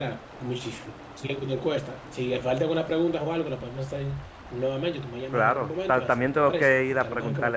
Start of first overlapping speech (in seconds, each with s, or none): 5.3 s